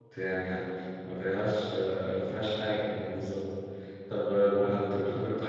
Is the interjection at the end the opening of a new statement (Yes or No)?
No